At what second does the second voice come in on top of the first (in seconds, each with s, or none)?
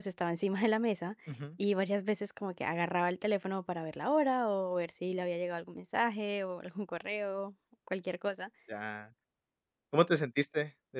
none